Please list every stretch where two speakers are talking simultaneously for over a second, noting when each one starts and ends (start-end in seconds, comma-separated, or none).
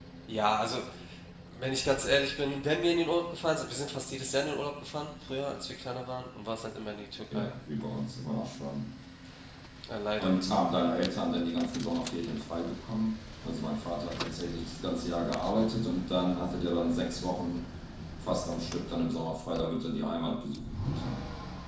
none